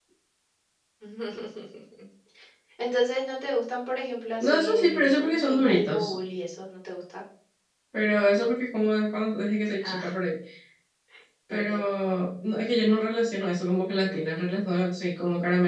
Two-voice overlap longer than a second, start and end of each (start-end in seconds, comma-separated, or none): 4.4-6.1